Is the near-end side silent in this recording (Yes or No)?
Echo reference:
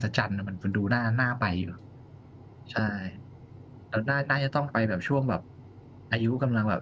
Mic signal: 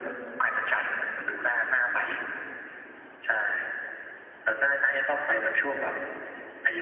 Yes